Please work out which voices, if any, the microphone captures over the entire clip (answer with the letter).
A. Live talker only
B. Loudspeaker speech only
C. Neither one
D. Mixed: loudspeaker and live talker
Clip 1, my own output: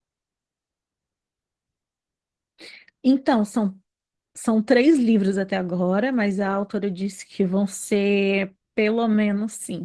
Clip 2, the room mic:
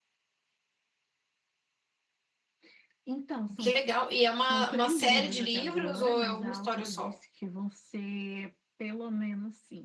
D